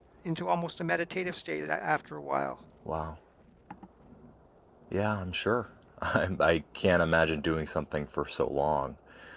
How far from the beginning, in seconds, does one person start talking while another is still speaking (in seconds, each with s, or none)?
none